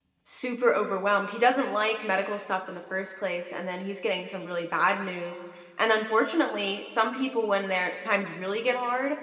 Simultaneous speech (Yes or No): No